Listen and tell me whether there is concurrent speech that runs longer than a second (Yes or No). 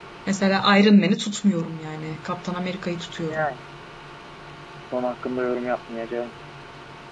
No